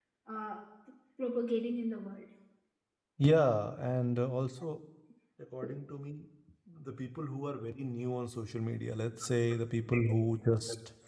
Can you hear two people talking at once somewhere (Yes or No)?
No